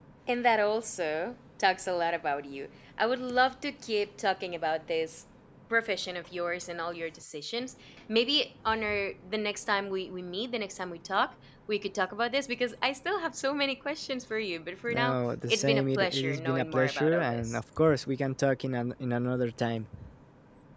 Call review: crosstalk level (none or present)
present